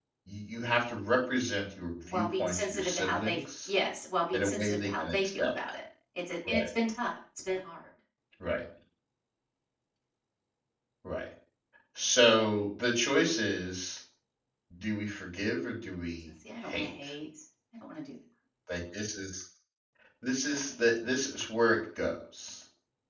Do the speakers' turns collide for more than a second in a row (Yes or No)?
Yes